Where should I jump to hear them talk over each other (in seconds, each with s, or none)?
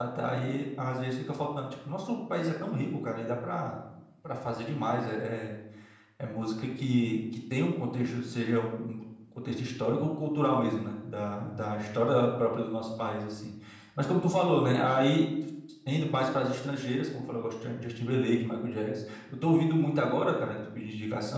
none